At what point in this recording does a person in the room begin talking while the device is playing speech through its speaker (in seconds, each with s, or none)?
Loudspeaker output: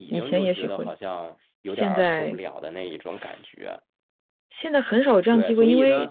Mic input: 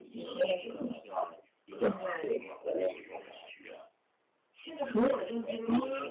none